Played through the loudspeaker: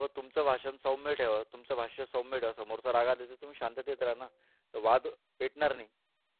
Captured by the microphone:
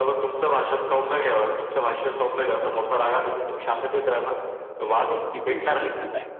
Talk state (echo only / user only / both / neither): both